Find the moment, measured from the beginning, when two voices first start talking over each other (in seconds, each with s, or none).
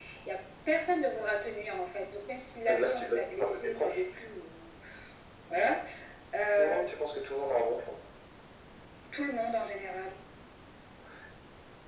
2.6 s